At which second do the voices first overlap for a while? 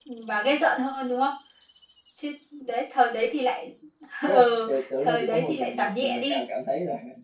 4 s

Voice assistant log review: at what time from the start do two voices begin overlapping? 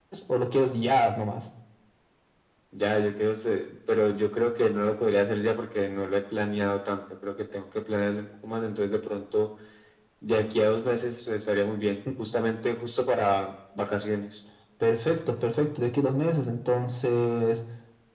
none

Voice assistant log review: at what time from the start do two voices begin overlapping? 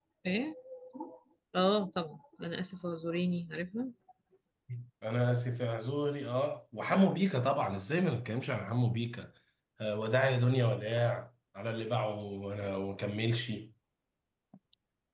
none

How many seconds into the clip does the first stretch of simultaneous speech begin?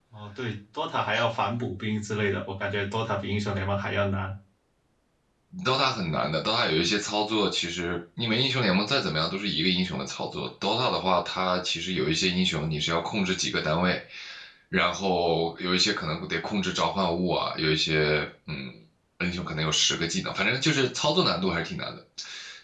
none

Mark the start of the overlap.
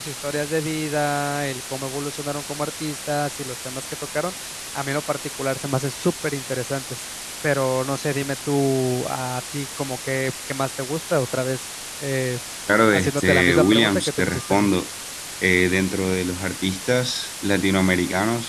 13 s

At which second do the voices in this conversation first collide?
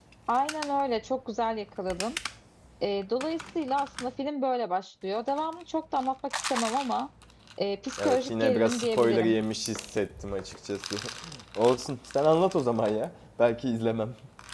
8 s

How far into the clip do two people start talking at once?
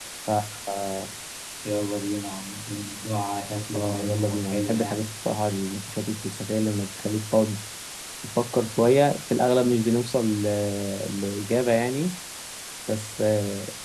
4 s

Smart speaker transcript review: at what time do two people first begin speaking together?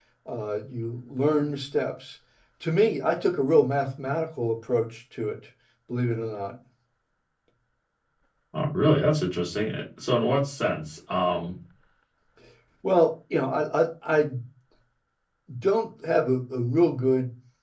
none

